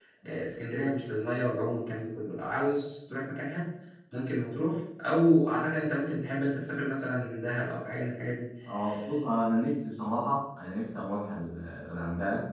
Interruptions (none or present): none